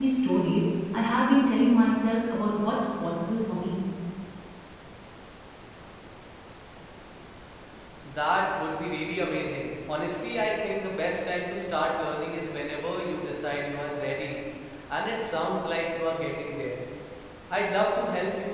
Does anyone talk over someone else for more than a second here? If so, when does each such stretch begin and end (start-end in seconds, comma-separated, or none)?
none